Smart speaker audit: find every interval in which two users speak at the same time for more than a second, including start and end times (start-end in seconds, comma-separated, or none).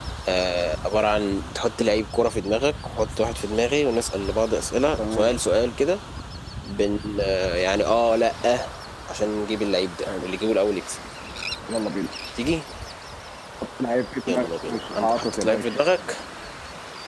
14.3-15.7